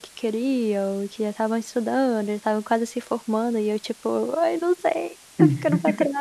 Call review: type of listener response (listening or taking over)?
listening